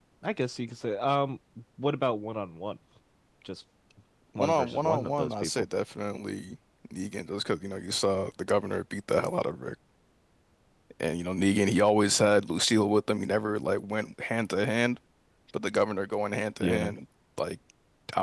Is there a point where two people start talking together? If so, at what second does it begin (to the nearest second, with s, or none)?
4 s